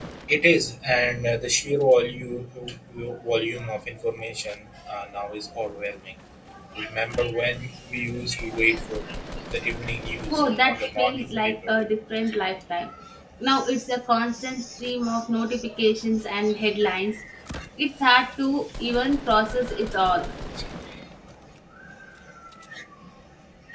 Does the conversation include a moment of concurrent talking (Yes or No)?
Yes